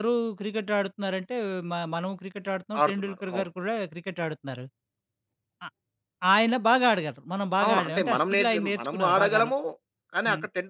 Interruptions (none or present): present